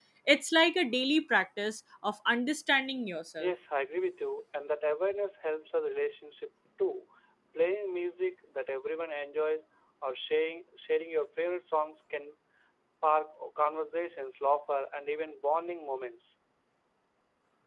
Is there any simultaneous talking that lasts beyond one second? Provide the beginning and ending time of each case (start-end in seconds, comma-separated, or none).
none